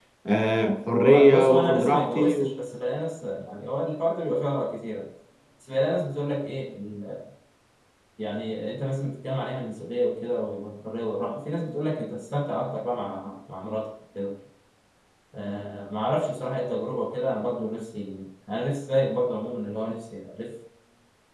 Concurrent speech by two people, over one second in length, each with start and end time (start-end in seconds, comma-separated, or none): 1.0-2.5